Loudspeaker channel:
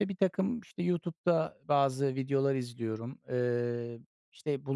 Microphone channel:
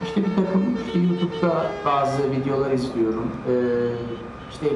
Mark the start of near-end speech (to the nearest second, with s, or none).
none